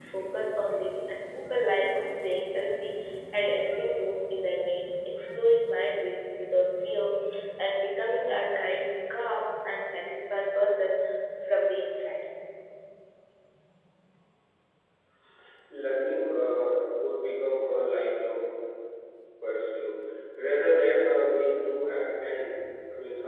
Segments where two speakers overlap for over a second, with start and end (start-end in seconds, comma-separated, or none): none